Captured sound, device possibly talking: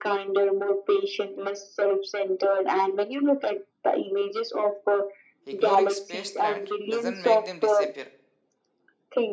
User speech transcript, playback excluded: Ignoring space threat doesn't make them disappear.

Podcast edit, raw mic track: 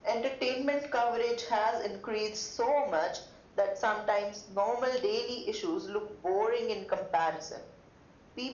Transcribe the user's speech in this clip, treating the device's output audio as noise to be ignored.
none

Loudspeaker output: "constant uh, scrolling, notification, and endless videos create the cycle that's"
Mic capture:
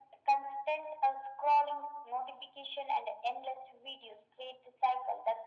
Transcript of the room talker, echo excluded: none

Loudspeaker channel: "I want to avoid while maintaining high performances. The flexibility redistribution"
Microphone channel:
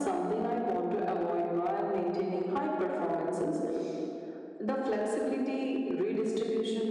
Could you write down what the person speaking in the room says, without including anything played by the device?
none

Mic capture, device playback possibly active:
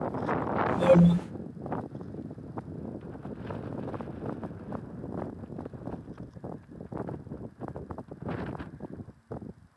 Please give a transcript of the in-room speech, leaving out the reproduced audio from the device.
Yeah. Yeah.

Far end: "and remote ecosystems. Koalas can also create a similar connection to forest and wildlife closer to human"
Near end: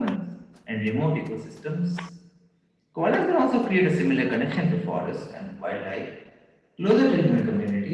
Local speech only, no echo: none

